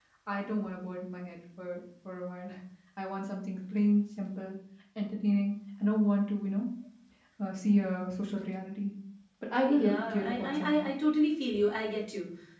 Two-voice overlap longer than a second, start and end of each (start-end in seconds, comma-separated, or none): 9.7-10.9